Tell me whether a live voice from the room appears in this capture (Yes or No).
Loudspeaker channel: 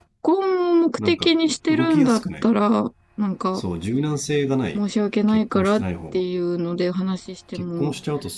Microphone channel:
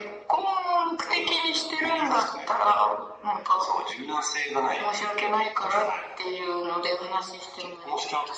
No